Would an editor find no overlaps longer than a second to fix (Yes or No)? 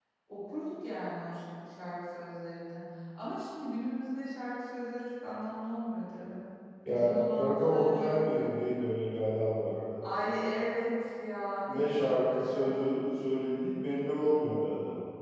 No